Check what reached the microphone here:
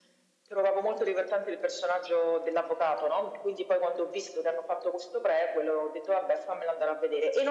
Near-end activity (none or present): none